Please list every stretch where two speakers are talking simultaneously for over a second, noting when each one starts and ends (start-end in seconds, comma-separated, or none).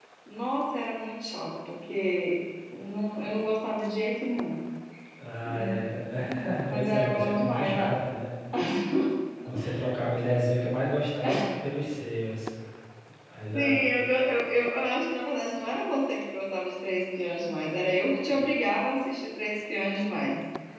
6.7-7.9